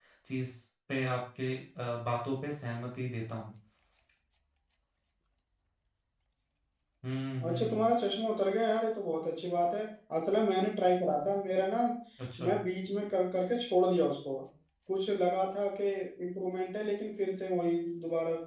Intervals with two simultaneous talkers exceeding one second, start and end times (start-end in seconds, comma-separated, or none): none